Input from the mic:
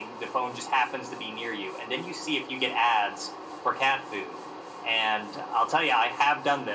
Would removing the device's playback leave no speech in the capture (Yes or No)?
Yes